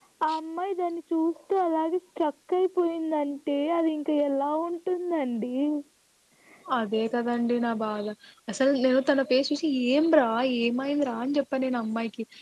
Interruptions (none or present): none